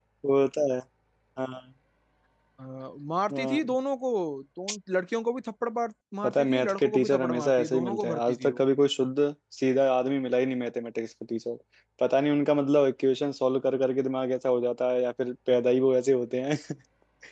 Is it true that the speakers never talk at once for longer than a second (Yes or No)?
No